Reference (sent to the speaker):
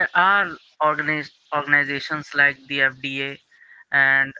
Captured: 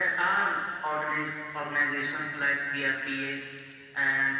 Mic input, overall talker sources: echo only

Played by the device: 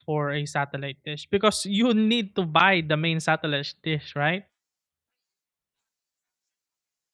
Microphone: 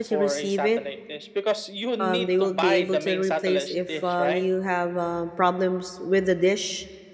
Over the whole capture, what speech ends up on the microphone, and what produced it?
both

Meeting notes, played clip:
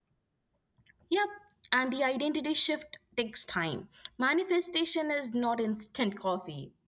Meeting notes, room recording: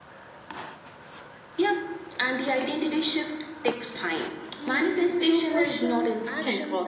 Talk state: both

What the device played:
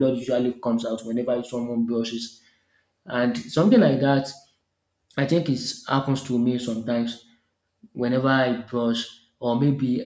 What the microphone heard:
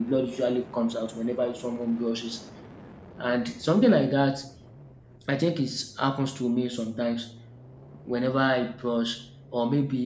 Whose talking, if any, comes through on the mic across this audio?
echo only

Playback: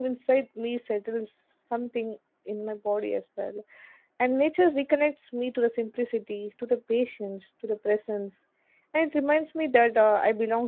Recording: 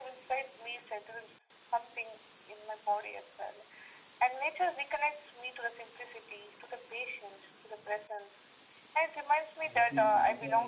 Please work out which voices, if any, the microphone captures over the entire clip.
both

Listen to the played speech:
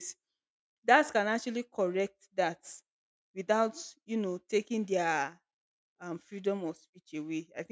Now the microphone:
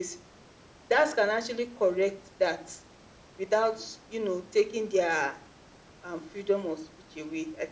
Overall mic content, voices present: echo only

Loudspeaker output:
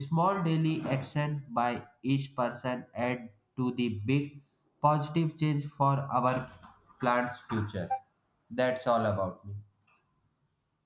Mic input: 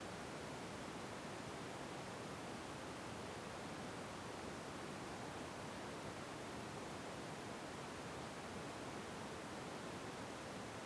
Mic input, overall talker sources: neither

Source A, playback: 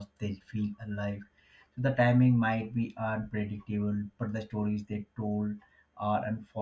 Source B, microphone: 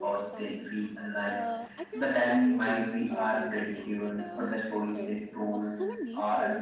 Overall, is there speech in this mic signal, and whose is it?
both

